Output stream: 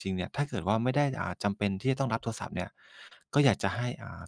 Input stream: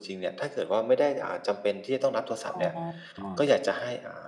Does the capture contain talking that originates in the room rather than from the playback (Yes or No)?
Yes